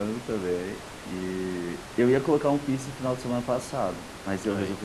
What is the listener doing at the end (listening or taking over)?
listening